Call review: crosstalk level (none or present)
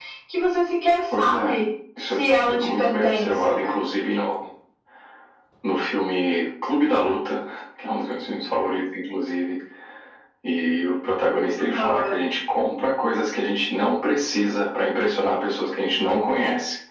present